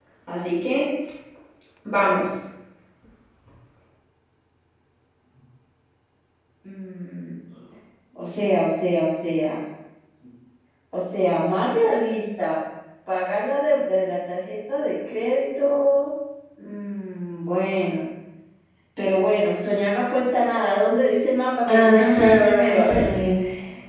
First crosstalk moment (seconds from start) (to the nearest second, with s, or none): 22 s